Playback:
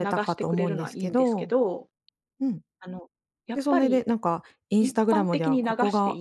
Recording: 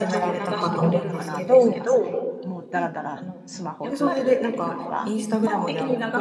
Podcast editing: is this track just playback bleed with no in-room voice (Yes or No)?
No